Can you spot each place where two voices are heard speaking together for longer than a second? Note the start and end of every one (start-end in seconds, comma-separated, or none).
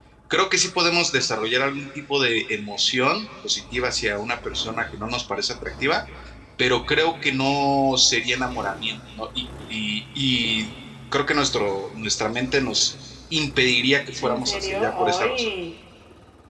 14.2-15.5